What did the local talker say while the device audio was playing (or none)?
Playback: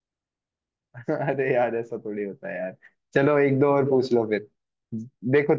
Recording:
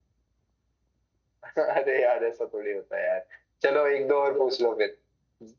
none